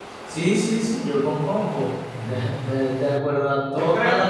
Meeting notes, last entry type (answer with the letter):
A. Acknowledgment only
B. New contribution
A